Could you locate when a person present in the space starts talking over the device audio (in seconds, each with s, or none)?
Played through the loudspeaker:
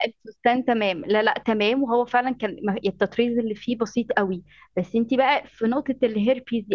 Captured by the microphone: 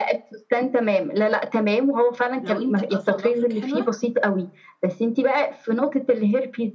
2.4 s